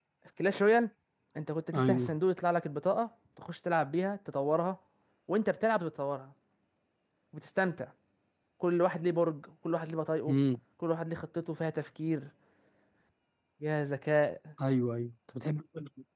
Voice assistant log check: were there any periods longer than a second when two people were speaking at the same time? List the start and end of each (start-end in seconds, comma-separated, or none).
none